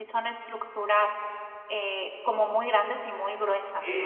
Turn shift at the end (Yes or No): Yes